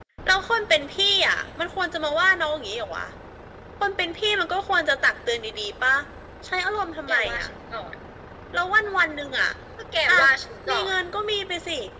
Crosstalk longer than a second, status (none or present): none